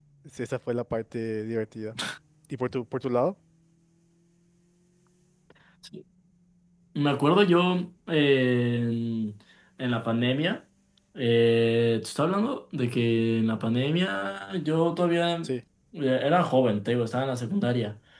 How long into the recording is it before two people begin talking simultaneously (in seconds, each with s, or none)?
none